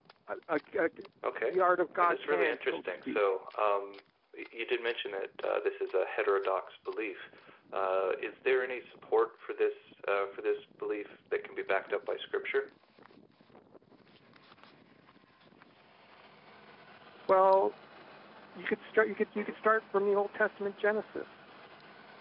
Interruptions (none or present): present